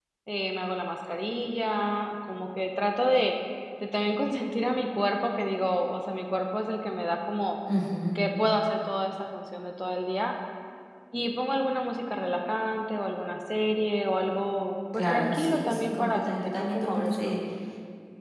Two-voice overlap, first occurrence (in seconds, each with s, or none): 14.9 s